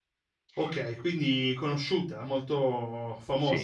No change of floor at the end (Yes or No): No